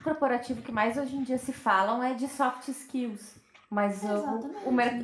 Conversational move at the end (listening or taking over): listening